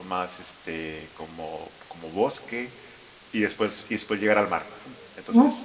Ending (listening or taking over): listening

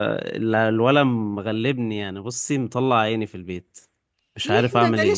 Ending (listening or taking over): taking over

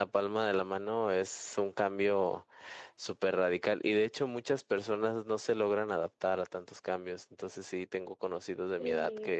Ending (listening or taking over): listening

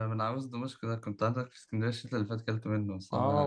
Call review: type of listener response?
taking over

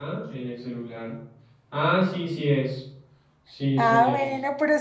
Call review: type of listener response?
taking over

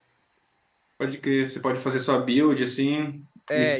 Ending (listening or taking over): taking over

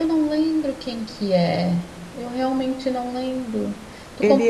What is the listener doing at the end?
taking over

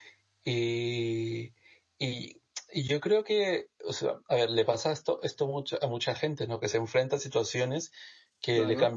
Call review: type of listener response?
listening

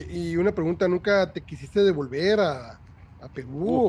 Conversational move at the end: taking over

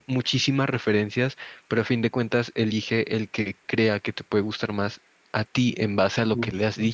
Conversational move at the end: listening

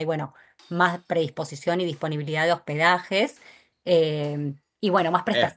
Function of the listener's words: listening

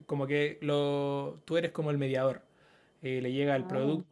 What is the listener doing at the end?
listening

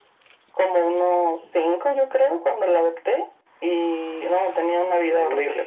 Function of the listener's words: taking over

